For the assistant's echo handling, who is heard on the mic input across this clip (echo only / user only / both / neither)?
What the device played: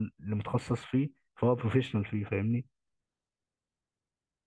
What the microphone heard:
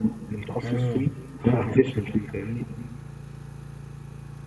both